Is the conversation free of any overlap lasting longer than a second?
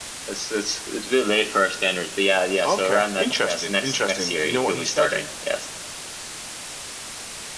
No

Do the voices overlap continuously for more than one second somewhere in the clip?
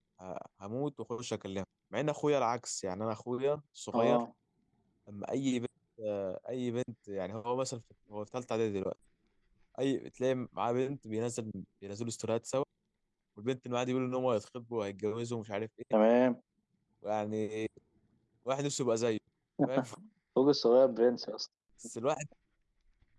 No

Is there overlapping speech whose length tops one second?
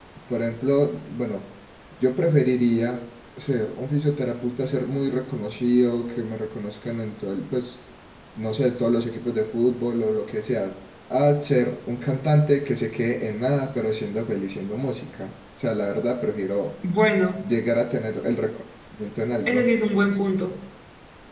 No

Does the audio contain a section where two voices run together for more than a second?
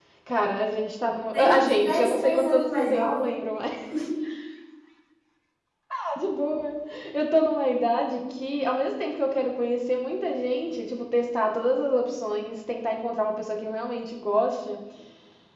Yes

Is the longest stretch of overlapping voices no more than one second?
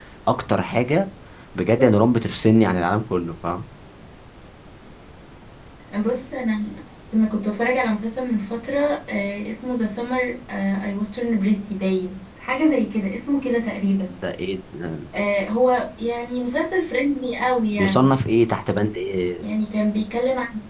Yes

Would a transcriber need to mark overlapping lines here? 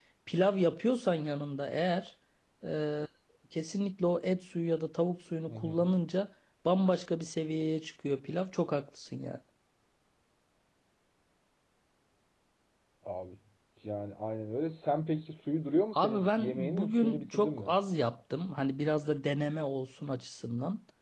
Yes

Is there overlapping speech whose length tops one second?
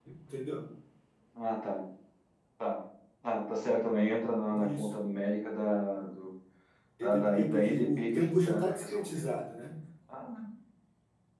Yes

